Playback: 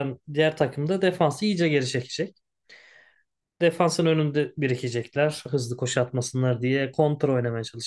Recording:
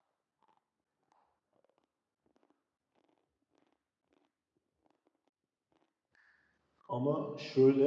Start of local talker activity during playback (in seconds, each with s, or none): 6.9 s